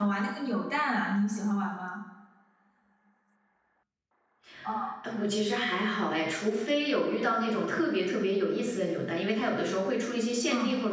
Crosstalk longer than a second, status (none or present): none